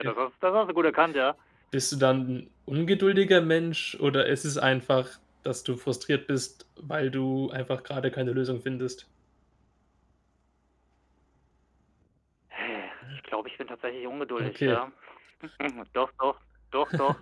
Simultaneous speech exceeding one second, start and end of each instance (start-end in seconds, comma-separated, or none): none